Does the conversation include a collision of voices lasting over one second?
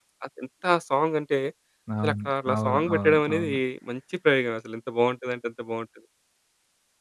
Yes, from 2.0 s

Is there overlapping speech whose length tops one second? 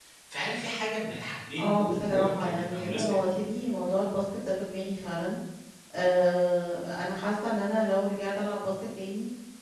Yes, from 1.6 s

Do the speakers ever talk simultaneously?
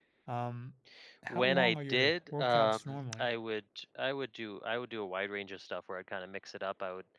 Yes, from 1.3 s

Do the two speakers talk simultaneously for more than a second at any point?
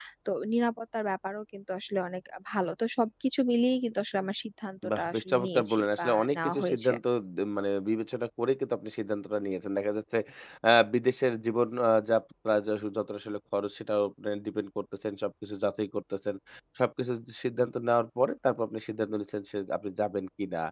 Yes, from 4.8 s

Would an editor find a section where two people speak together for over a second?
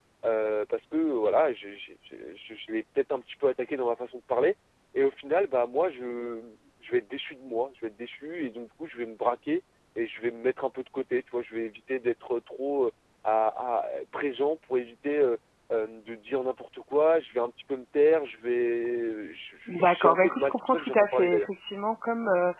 Yes, from 19.7 s

